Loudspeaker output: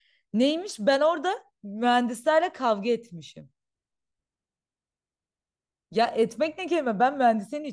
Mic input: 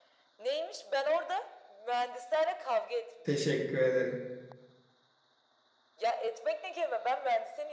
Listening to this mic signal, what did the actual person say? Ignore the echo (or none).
Teşekkür ederim.